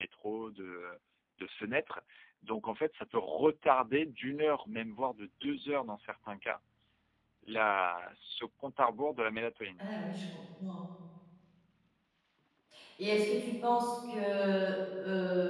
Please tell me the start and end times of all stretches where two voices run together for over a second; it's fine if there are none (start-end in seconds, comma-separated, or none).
none